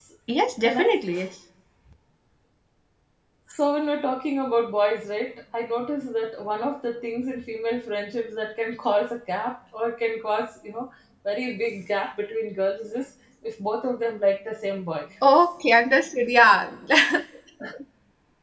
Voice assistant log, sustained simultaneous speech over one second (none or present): none